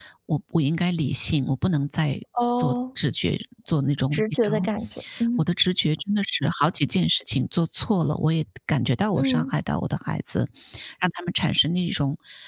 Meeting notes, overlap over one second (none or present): none